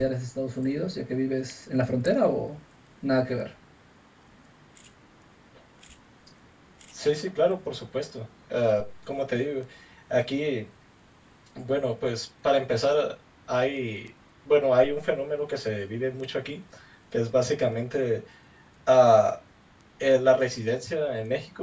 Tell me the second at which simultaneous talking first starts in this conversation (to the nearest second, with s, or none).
none